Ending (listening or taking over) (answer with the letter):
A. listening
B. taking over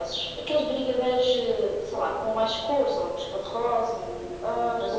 B